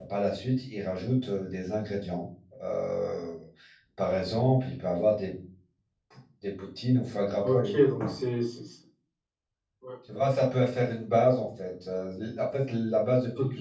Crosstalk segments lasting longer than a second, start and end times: none

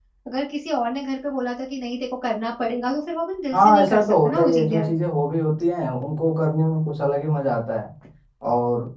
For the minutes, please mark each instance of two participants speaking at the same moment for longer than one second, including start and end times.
3.5-4.9

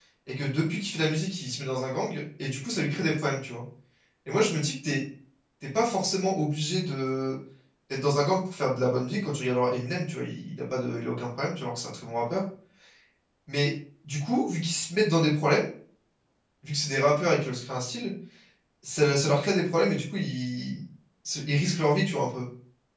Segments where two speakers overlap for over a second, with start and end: none

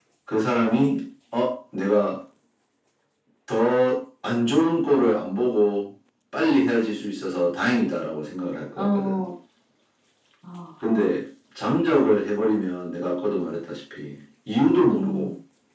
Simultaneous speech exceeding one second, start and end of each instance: none

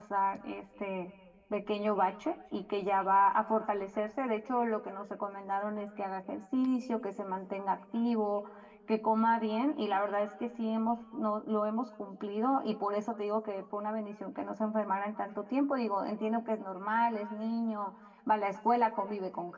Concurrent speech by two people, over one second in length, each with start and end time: none

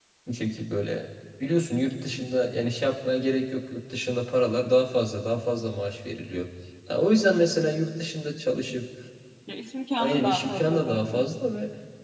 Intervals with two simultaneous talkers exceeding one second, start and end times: 10.0-11.2

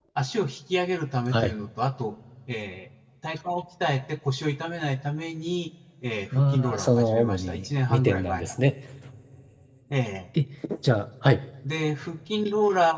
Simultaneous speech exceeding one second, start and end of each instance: 6.3-8.4

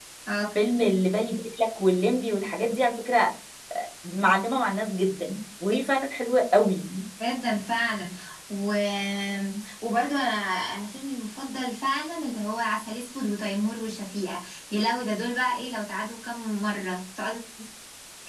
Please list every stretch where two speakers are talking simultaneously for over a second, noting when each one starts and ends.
none

